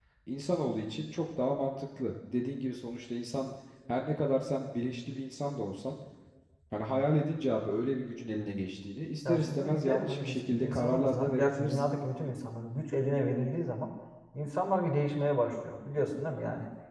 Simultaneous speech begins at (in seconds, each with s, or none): 9.2 s